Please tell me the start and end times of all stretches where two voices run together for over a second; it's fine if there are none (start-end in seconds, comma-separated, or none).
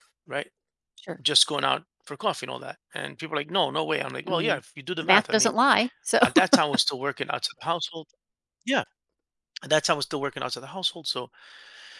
none